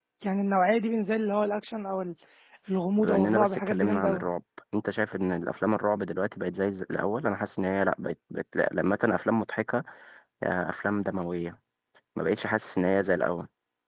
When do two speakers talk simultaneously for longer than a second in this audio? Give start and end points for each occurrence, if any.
3.0-4.2

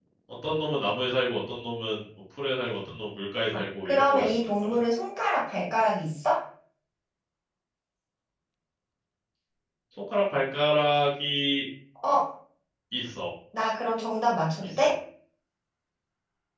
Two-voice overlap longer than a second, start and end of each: 3.5-4.8

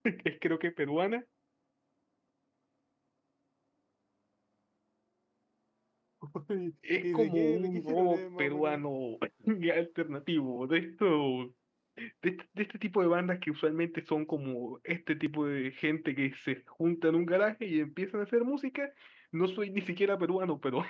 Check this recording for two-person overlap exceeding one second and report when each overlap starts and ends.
7.0-8.8

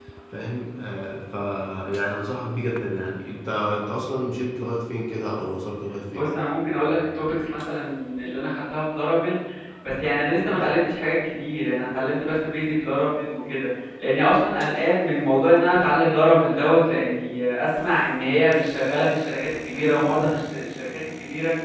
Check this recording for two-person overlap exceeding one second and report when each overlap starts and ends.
none

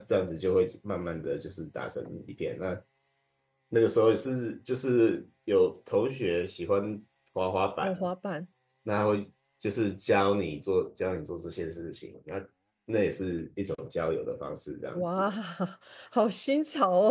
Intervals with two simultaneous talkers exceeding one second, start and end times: none

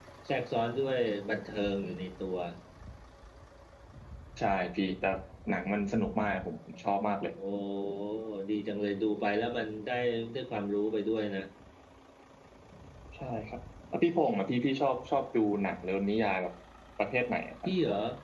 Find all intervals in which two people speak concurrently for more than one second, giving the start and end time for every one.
none

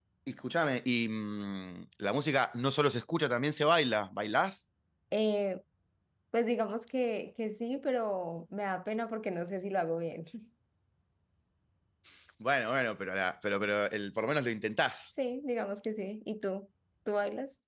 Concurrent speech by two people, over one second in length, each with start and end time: none

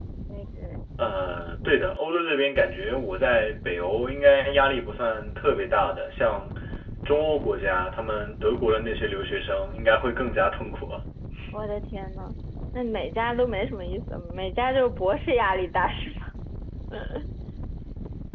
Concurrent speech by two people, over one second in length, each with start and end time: none

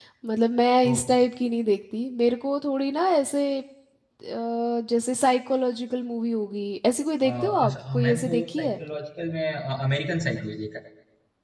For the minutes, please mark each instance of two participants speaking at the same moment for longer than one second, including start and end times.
7.2-8.8

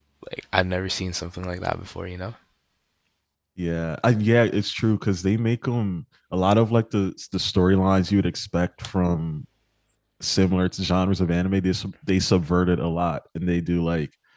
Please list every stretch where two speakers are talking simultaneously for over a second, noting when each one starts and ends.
none

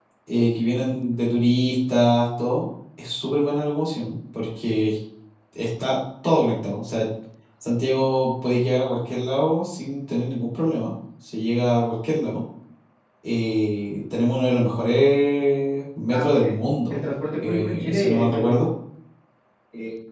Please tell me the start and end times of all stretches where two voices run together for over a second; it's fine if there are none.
17.4-18.7

